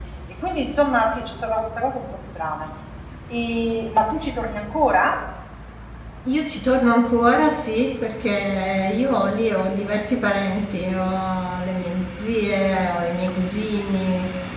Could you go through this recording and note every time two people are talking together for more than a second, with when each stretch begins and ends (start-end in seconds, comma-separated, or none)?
none